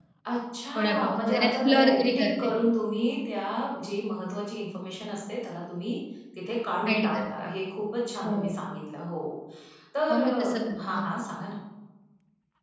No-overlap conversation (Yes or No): No